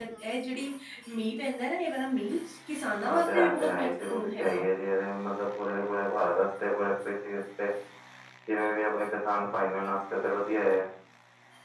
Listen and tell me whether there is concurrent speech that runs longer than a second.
Yes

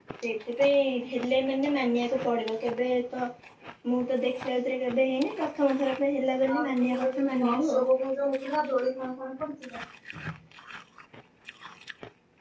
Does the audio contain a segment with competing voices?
Yes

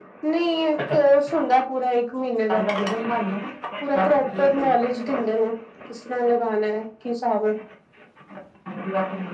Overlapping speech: Yes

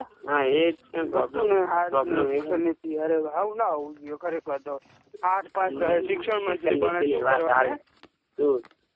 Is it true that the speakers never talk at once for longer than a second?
No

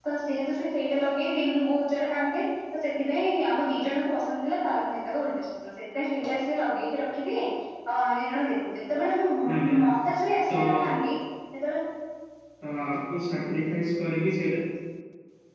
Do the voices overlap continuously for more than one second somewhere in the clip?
No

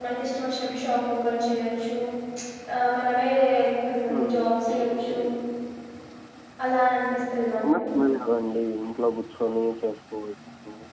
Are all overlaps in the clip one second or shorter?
Yes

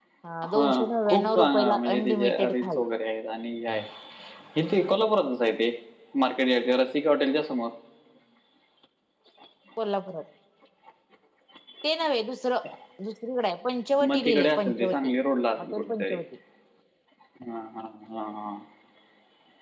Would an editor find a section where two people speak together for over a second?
Yes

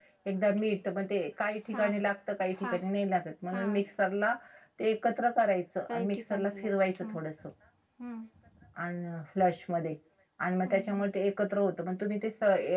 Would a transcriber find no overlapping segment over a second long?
No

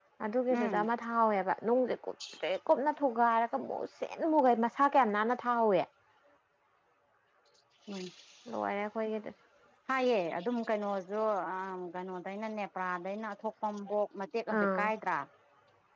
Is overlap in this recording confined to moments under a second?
Yes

